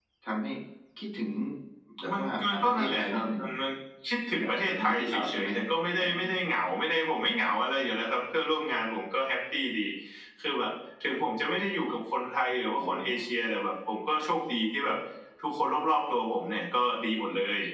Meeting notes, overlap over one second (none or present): present